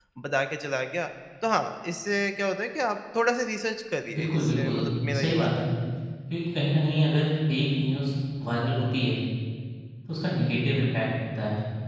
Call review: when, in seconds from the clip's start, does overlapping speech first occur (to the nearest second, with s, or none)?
4 s